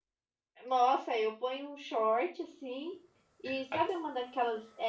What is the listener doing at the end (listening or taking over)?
listening